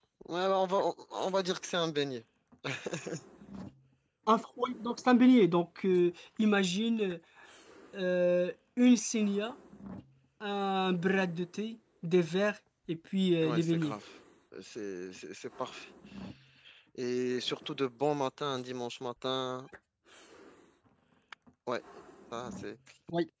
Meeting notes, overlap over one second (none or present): none